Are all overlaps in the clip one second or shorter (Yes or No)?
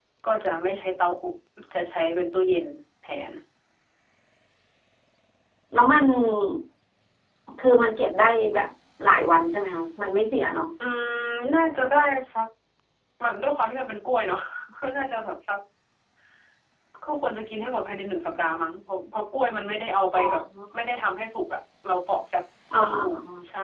Yes